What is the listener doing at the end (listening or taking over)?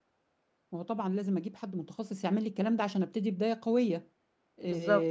listening